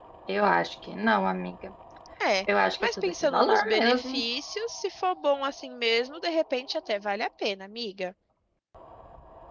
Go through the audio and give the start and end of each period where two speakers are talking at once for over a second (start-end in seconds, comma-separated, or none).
2.5-4.2